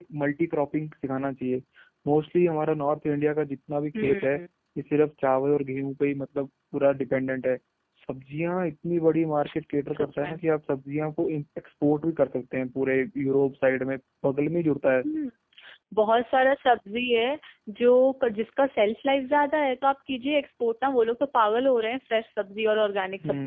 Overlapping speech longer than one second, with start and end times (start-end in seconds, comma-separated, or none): none